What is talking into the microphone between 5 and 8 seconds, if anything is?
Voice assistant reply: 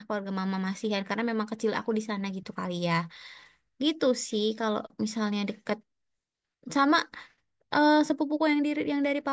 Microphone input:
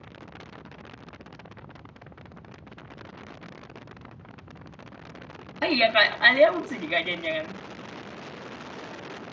user only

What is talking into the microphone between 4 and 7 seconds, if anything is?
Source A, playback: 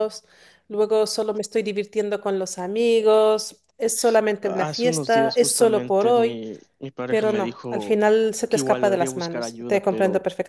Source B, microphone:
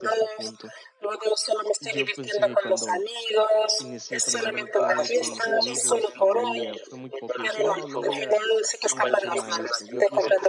both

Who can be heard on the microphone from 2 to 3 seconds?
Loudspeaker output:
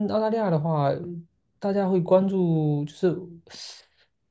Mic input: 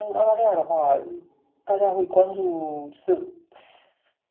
echo only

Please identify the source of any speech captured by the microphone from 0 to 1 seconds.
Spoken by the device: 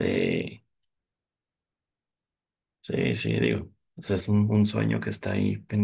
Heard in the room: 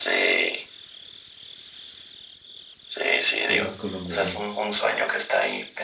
echo only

